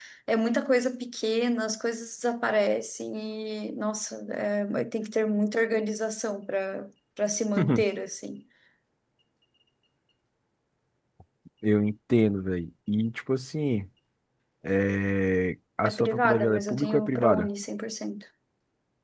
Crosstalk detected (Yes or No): Yes